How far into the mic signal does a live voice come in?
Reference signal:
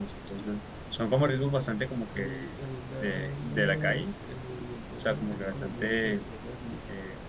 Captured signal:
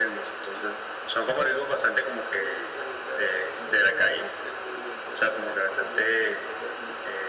none

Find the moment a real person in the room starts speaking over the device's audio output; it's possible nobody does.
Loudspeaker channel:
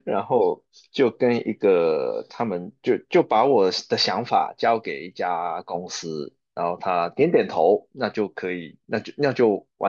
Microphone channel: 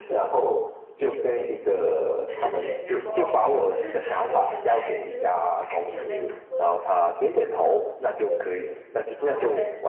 2.2 s

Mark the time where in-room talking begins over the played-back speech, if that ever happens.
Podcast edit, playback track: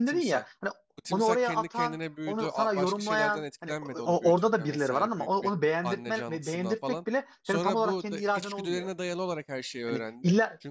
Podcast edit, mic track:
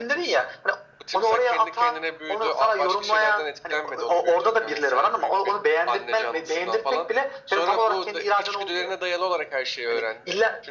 none

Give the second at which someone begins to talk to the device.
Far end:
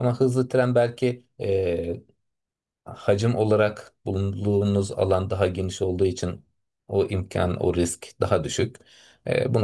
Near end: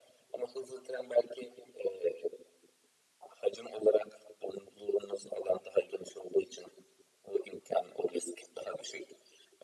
none

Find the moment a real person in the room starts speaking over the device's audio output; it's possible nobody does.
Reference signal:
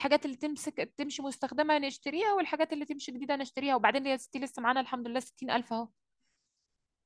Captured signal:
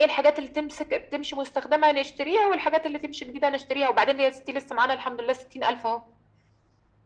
none

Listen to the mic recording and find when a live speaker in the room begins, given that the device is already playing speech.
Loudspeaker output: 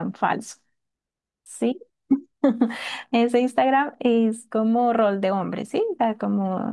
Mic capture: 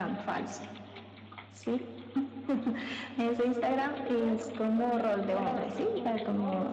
3.2 s

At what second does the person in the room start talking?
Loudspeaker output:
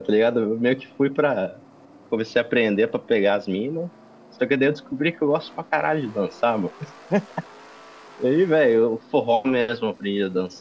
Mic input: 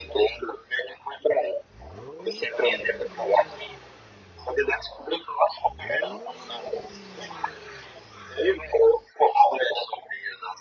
none

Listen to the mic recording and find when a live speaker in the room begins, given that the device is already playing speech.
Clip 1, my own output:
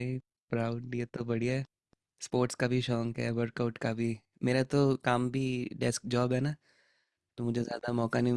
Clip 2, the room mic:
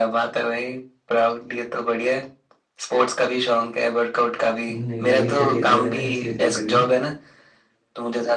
4.7 s

